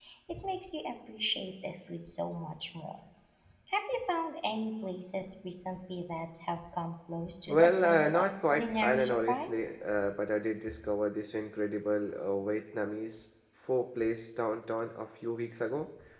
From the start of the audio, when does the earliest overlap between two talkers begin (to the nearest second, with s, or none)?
7 s